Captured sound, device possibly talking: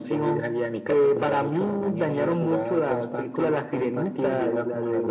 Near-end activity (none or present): none